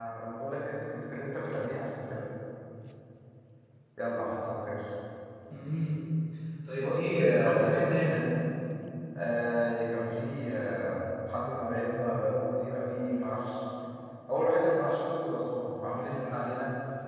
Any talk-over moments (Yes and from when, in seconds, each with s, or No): Yes, from 6.8 s